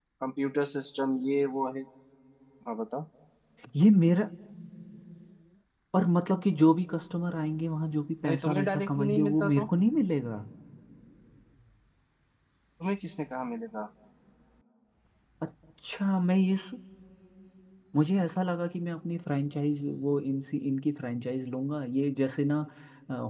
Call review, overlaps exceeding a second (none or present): present